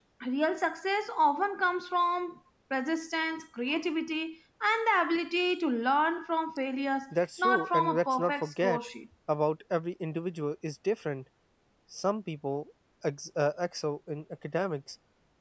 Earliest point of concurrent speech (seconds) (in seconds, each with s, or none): 7.4 s